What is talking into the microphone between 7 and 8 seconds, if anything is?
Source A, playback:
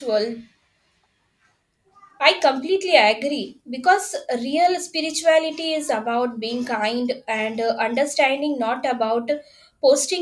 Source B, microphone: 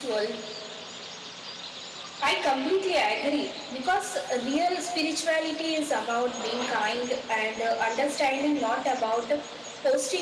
echo only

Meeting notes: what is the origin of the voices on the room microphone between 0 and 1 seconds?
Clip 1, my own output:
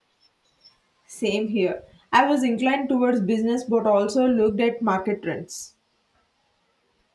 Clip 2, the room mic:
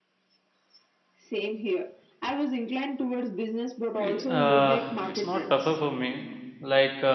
neither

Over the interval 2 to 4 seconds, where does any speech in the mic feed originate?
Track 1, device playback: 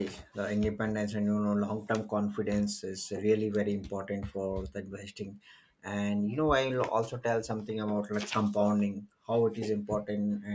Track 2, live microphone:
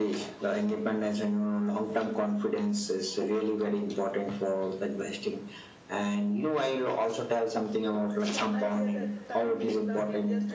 echo only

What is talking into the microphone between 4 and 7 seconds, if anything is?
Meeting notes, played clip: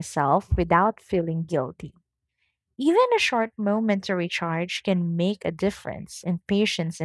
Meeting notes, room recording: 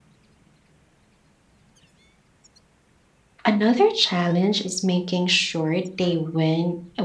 user only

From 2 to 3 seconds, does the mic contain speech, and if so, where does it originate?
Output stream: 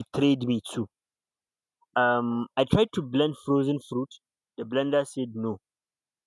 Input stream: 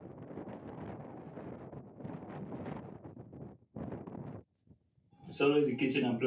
neither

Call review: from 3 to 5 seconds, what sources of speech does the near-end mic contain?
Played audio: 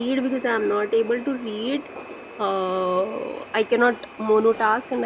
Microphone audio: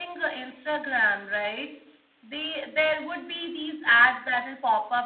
user only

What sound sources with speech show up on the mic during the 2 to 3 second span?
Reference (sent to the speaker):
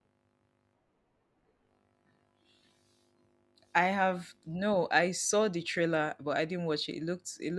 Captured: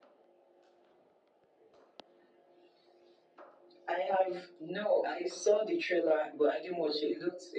neither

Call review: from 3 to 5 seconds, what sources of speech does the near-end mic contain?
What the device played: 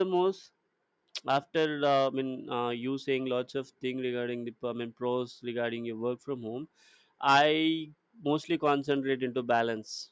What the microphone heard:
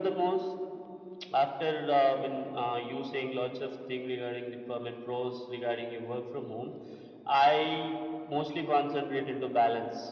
echo only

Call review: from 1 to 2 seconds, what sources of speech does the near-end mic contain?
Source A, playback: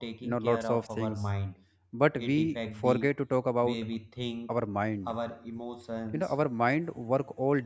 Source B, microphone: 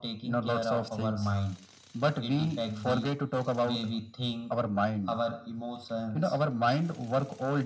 echo only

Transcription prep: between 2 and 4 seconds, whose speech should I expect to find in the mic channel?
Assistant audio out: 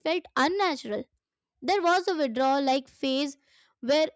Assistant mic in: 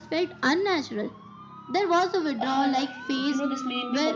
both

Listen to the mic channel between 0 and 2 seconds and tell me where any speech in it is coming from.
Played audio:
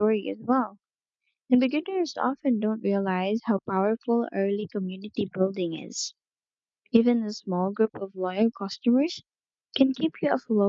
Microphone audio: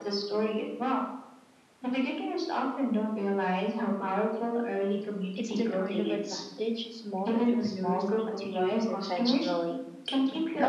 echo only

